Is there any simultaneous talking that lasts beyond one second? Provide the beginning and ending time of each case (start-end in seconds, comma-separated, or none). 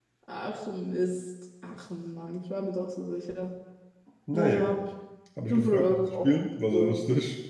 5.5-6.9